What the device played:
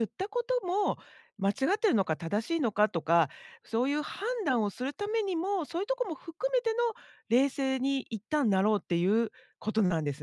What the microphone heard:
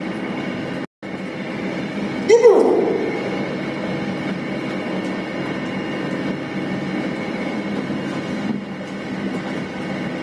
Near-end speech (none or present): present